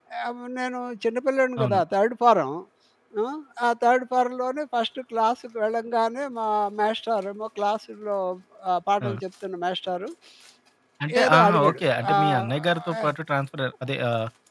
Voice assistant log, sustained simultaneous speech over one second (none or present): present